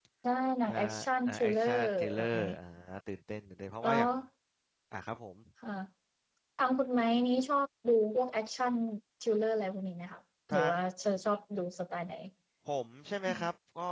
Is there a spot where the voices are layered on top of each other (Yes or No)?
Yes